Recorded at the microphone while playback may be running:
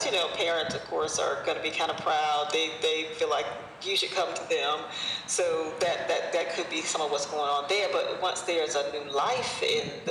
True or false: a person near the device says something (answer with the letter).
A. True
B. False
B